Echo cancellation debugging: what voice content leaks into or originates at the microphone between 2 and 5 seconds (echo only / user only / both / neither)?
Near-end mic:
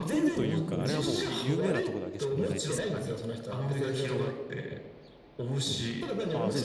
both